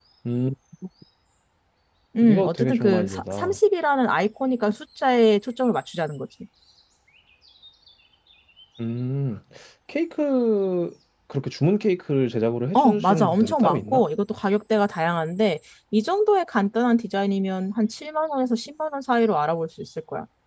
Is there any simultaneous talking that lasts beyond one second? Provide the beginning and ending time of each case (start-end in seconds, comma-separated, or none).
2.2-3.6, 12.8-14.0